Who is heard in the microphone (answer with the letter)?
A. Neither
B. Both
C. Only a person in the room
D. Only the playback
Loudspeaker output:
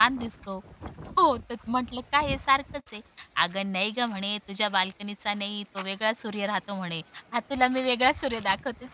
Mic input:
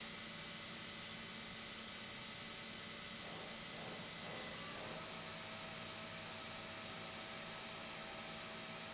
A